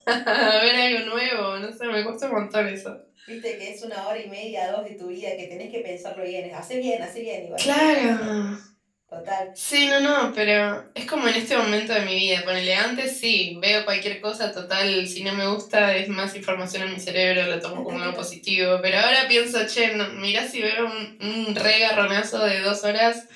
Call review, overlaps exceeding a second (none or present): none